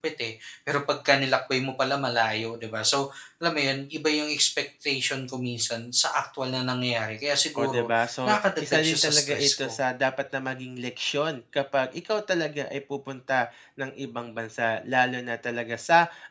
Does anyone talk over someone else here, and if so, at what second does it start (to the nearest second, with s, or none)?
8 s